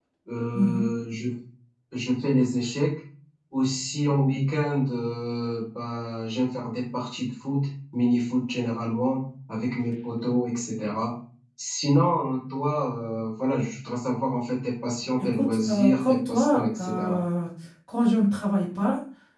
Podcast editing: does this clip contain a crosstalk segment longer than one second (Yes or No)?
Yes